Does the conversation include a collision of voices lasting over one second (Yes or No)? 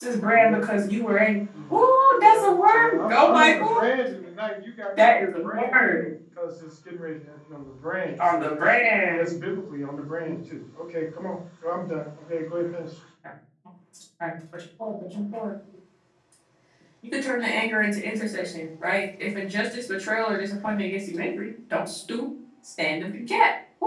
Yes